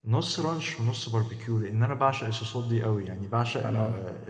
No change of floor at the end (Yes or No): Yes